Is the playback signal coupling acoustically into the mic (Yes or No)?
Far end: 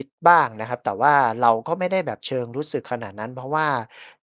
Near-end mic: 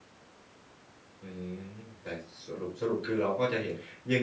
No